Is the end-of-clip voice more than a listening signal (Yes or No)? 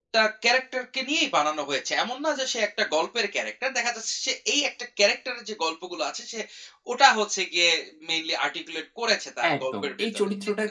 Yes